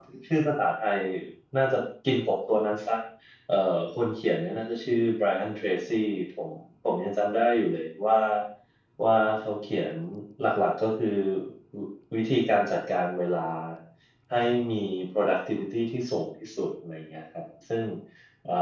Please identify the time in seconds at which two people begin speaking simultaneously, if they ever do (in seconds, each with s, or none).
none